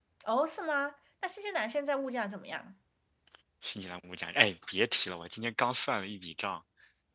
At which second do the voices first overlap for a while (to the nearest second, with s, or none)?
none